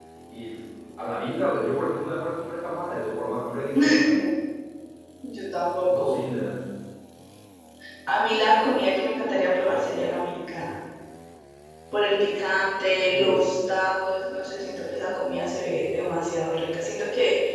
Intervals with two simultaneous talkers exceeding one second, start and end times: none

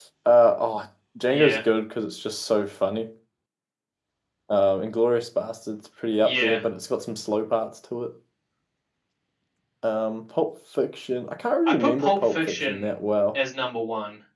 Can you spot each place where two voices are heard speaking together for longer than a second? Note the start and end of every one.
11.7-12.9

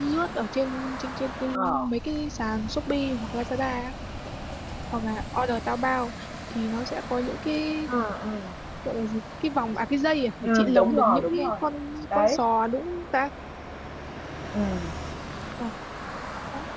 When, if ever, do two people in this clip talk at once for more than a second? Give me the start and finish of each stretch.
10.4-11.6

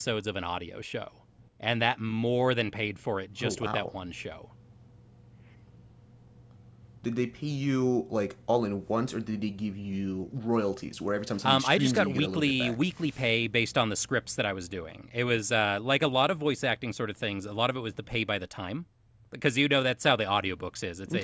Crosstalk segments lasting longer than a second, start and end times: 11.4-12.7

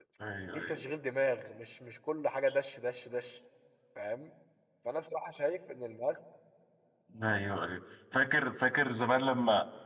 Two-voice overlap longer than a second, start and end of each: none

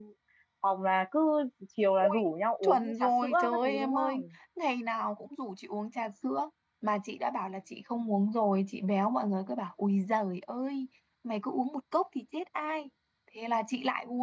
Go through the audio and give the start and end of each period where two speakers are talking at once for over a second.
2.6-4.2

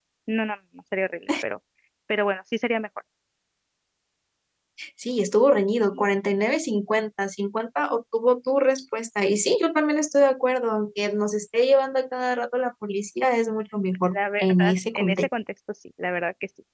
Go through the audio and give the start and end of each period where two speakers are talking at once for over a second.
14.0-15.3

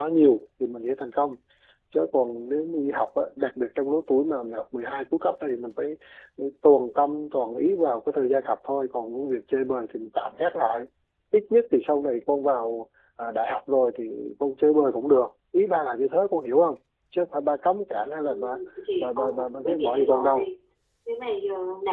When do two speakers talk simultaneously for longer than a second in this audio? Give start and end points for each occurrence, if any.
19.0-20.5

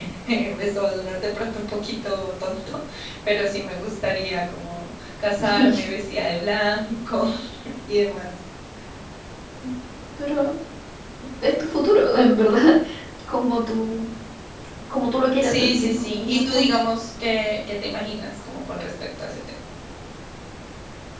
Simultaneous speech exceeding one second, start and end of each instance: 15.4-16.8

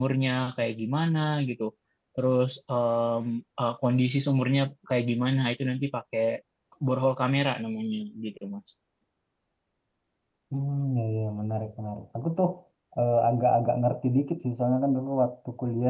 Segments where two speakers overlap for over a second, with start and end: none

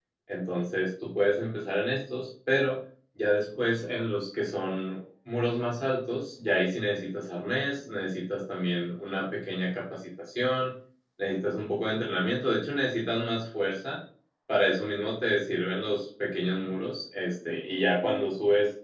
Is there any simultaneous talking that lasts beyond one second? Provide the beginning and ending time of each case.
none

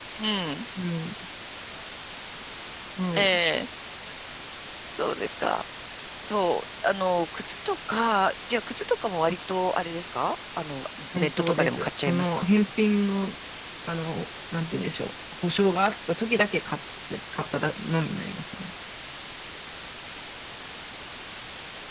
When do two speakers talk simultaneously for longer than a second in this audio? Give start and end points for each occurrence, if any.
11.1-12.5

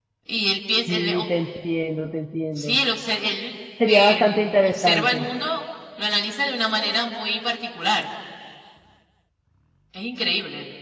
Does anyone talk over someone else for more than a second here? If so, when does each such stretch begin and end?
3.9-5.2

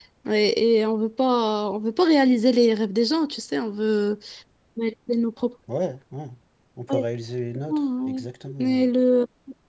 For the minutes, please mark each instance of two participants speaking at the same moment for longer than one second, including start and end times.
none

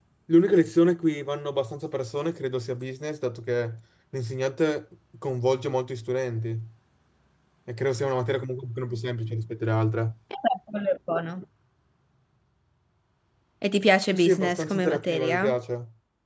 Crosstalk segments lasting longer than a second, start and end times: 14.2-15.4

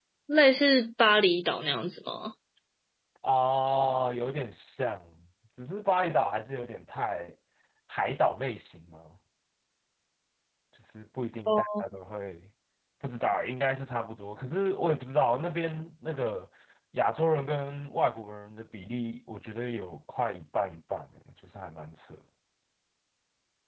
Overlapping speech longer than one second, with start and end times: none

